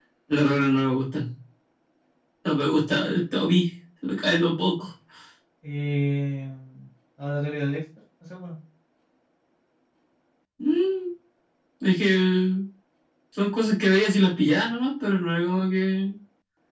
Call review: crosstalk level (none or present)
none